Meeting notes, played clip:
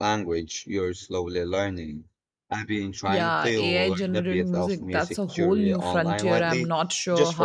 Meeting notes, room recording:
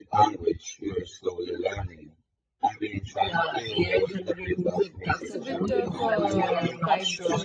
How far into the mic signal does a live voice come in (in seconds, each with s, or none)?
5.2 s